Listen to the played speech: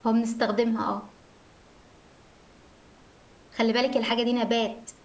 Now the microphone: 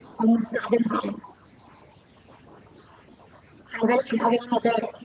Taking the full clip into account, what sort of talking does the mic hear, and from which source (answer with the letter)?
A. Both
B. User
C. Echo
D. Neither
C